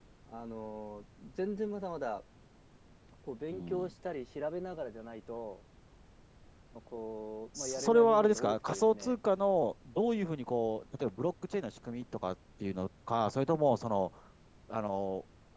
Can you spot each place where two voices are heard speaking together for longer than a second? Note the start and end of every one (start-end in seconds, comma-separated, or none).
7.5-9.2